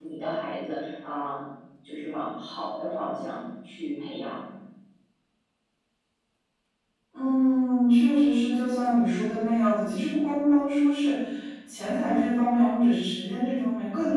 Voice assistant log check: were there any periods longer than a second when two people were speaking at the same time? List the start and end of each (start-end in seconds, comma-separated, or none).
none